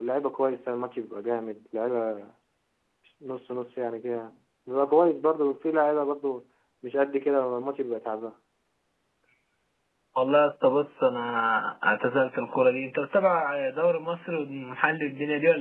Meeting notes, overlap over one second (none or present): none